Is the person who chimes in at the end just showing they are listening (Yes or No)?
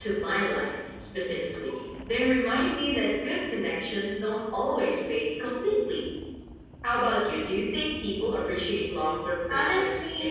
No